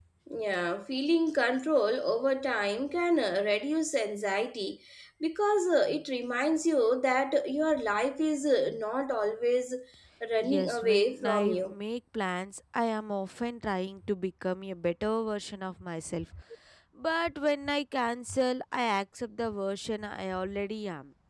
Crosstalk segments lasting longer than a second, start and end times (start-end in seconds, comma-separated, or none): 10.4-11.7